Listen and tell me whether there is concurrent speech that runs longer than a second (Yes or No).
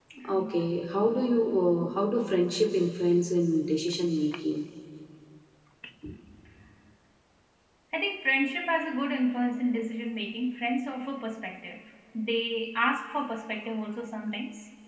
No